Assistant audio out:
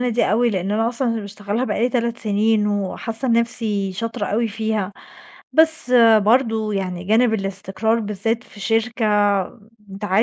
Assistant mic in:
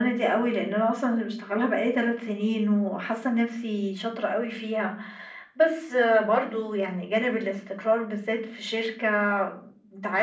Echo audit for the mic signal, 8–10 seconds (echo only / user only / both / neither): echo only